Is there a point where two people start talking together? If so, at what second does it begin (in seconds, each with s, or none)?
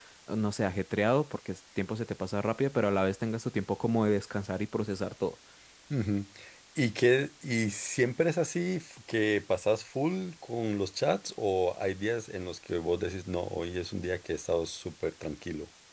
none